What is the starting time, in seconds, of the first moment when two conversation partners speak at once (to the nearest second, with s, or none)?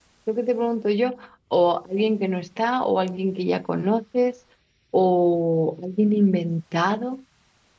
none